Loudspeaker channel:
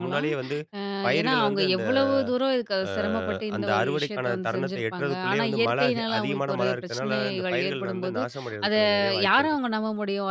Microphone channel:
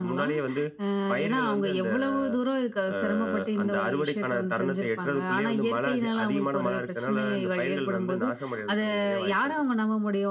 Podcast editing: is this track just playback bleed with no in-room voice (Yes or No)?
Yes